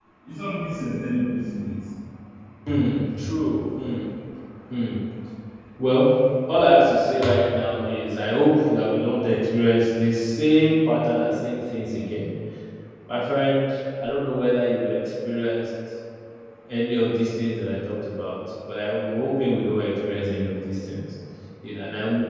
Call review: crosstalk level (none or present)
none